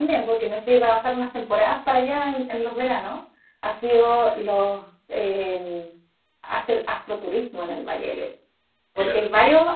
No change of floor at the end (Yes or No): Yes